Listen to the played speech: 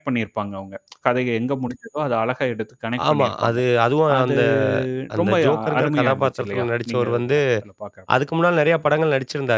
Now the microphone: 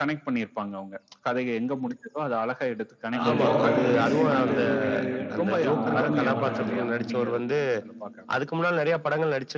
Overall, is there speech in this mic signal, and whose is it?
both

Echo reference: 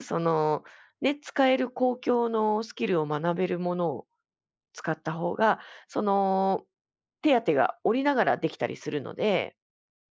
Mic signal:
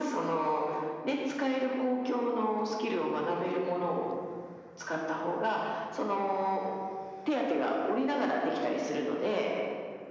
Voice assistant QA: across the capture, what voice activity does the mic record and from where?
echo only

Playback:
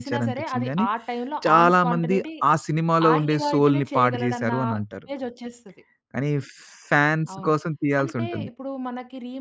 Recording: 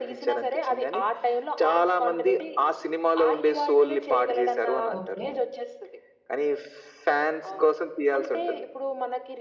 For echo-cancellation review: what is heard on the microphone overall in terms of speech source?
both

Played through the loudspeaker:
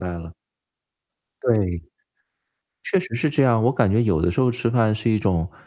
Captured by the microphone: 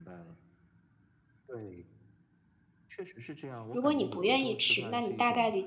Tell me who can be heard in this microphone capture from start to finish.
both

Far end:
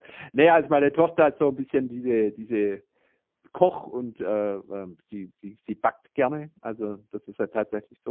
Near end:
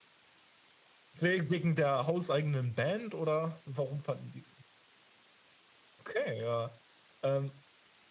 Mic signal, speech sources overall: user only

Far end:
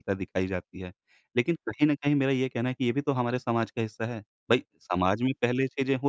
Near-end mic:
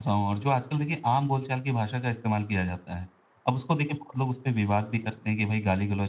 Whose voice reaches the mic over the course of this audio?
user only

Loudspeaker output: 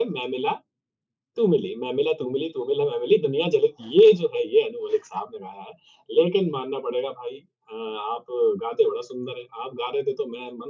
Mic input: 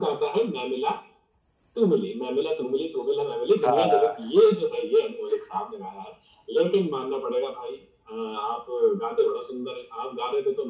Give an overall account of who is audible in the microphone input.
both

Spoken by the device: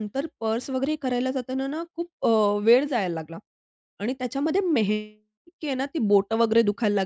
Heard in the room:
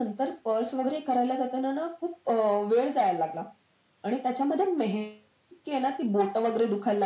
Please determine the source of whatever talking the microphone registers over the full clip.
echo only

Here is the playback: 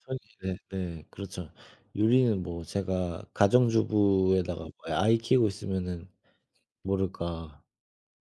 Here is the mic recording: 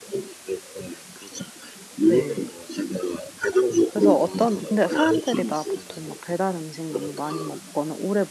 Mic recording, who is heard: both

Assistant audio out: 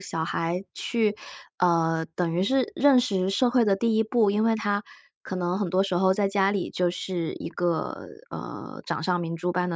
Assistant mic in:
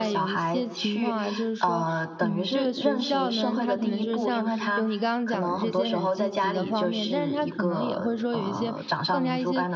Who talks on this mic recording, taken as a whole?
both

